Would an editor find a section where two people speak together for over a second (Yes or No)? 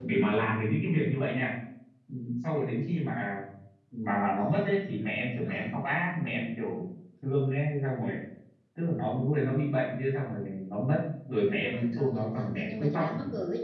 Yes